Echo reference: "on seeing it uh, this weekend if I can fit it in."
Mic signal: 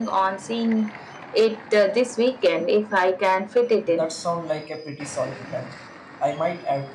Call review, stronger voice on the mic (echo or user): echo